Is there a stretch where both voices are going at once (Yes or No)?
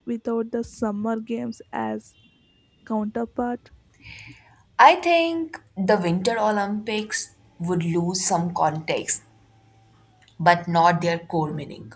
No